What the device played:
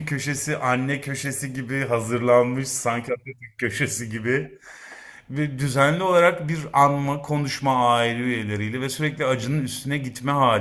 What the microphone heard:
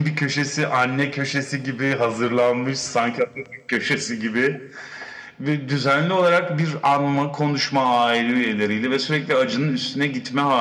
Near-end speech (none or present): none